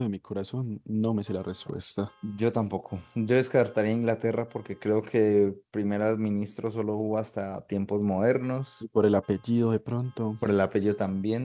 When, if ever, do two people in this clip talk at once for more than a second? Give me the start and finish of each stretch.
none

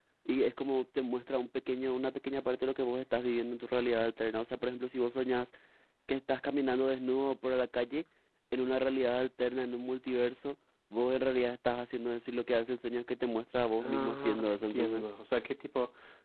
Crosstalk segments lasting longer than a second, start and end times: 13.8-15.0

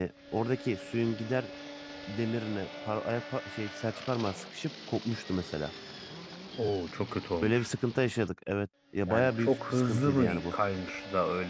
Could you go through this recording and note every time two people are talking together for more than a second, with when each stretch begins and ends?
9.1-10.5

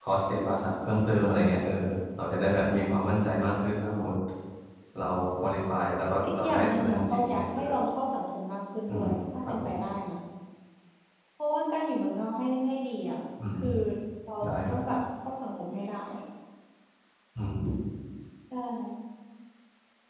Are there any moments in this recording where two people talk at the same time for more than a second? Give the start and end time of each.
6.2-7.6

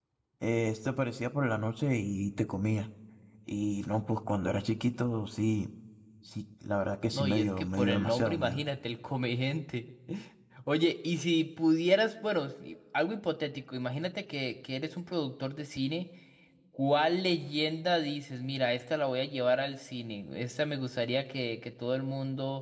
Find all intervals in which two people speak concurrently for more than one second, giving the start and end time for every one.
7.1-8.6

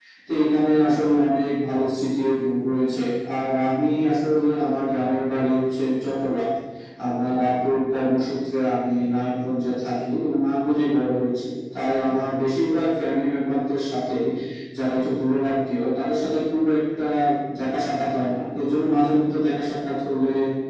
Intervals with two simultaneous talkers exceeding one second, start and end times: none

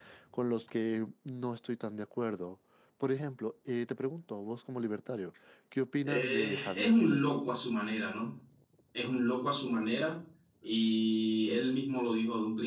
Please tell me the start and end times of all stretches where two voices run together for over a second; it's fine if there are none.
6.0-7.3

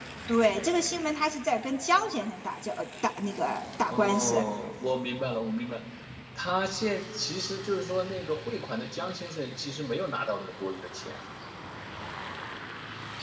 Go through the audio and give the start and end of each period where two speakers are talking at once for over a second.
none

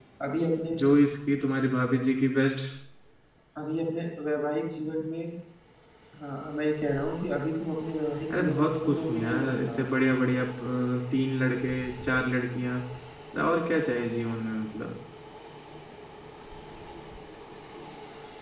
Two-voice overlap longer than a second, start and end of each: 8.3-9.9

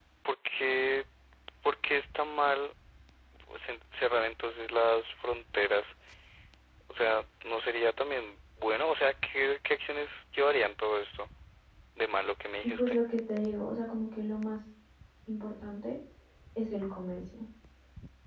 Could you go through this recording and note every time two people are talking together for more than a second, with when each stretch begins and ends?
none

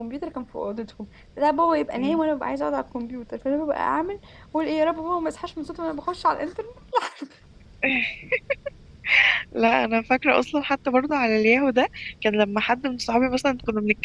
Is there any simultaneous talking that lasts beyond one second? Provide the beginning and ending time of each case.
none

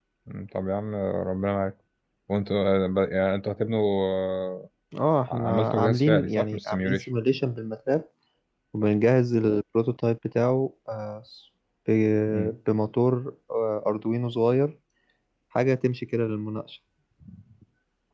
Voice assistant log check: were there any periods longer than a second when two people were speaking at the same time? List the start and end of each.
5.3-7.0

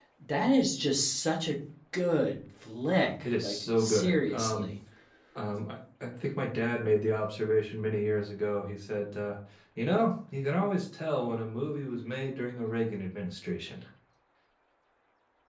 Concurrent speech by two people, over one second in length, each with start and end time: 3.4-4.7

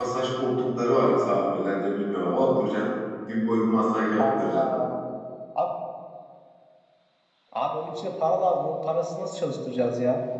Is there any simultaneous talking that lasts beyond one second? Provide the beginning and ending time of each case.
none

